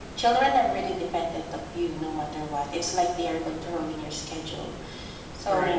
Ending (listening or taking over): listening